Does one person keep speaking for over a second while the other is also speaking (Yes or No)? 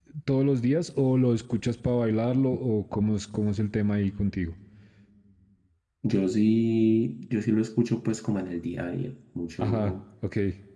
No